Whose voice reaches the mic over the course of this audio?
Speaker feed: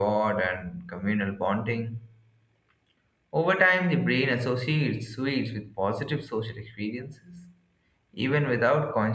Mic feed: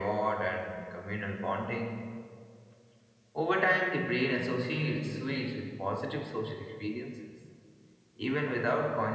echo only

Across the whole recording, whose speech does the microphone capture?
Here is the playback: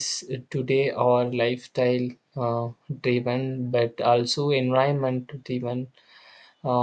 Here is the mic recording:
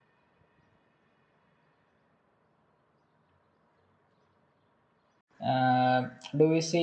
user only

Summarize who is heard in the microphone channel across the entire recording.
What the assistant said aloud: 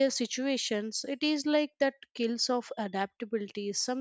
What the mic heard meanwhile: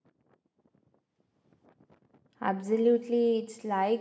user only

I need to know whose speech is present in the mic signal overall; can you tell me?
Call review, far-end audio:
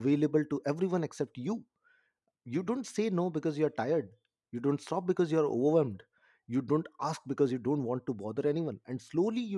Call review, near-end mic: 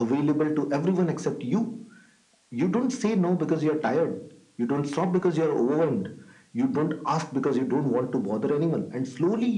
echo only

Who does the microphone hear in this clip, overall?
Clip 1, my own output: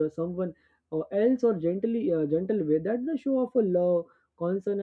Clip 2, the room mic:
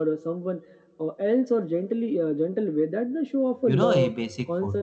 both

